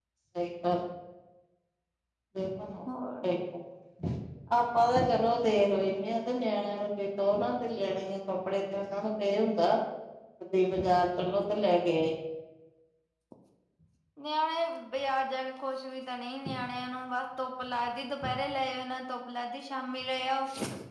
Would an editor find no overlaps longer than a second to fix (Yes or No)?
Yes